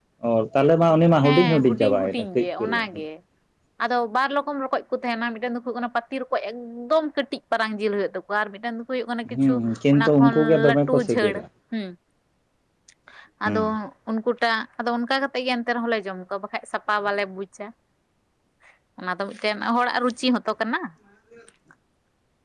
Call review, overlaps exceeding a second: present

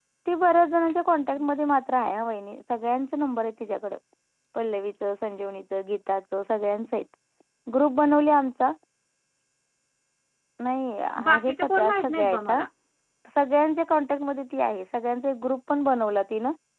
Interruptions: present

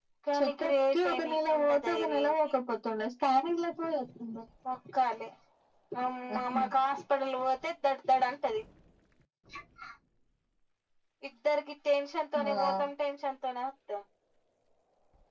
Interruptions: present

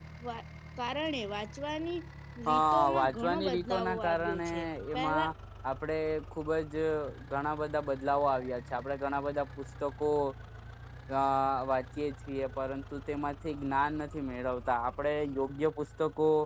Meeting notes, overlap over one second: present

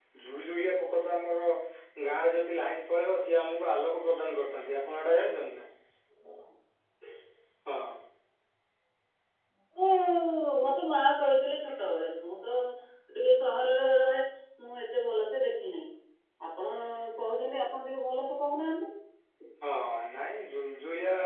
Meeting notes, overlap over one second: none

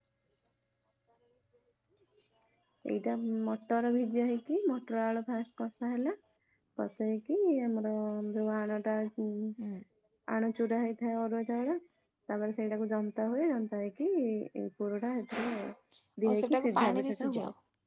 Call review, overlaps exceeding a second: present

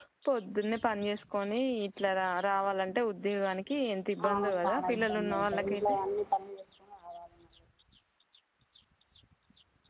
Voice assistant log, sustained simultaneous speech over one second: present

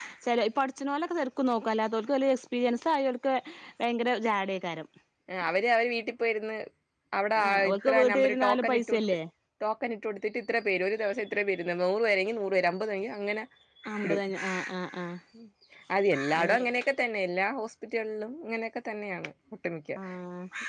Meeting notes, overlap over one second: present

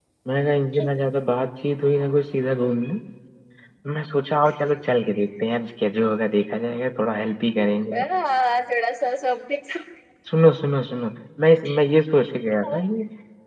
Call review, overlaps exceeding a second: none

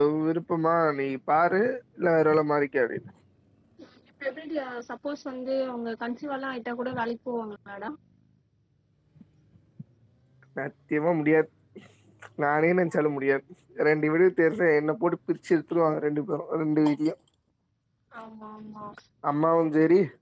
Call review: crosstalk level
none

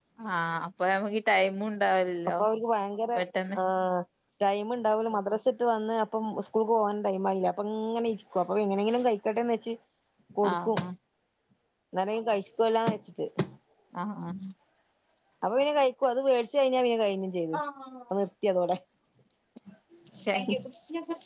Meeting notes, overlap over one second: none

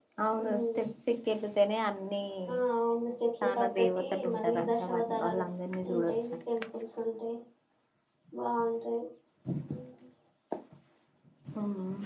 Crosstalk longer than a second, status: present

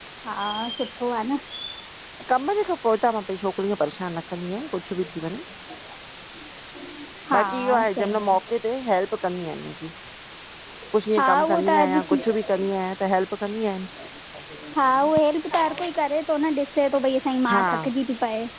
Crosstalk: present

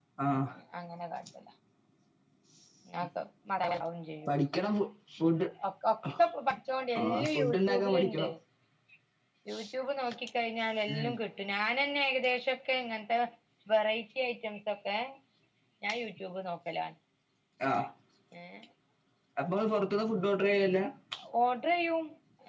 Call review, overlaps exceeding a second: present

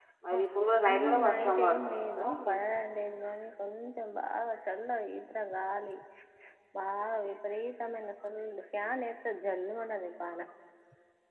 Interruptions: present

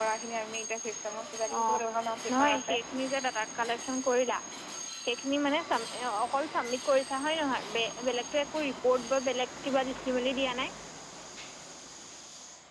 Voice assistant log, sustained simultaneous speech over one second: none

